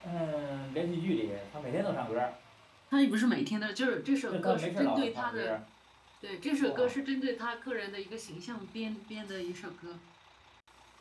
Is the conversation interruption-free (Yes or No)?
No